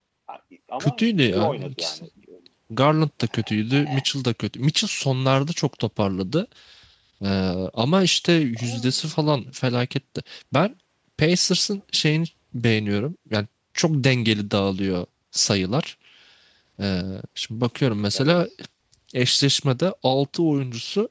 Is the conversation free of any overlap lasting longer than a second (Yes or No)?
No